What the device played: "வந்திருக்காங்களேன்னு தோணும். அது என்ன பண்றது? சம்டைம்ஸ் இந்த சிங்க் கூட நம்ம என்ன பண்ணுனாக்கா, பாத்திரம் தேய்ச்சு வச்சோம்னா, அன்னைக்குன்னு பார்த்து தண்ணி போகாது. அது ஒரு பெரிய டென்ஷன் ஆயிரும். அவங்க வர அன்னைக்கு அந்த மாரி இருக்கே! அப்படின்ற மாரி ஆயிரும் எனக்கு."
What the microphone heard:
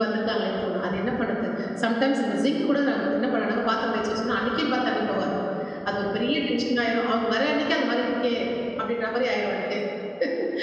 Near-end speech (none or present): none